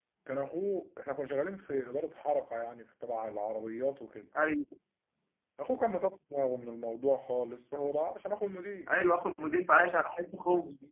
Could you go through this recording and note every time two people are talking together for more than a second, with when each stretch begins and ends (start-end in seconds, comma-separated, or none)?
none